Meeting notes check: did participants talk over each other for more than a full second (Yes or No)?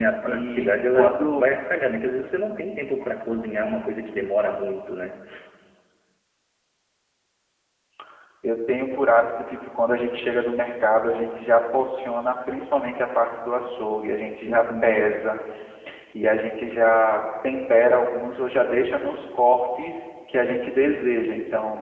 Yes